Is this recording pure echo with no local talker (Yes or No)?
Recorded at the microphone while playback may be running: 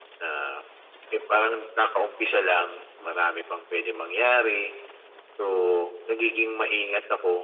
Yes